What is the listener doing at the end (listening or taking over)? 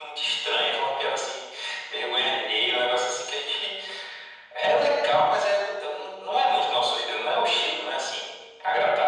taking over